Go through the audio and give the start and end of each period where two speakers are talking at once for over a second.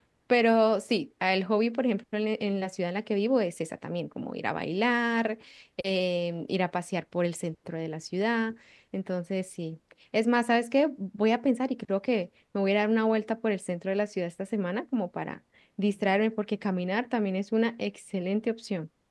none

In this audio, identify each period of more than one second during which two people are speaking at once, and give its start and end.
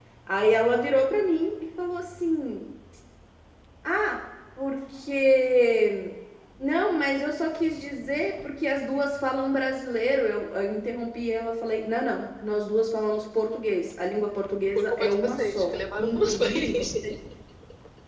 14.8-16.8

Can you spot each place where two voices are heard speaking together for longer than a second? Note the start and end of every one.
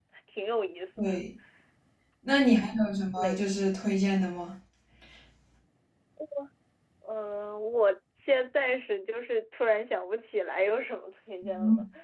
none

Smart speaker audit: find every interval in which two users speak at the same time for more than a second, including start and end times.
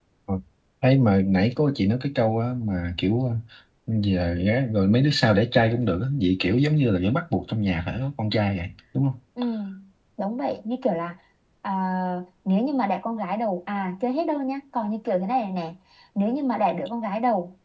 none

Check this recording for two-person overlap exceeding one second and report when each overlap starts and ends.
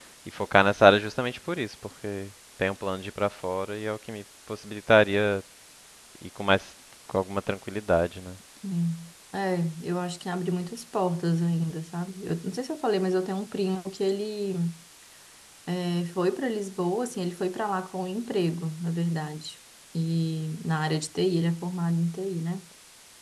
none

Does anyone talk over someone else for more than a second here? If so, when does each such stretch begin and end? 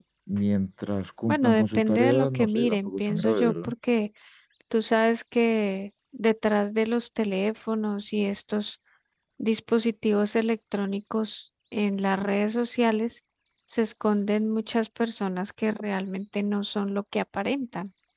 1.3-3.7

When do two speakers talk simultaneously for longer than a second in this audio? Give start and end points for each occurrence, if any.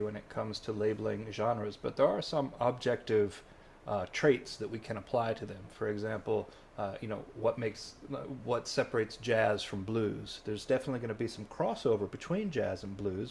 none

